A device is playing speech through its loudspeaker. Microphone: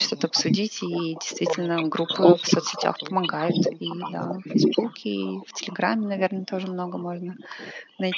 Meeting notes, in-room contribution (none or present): present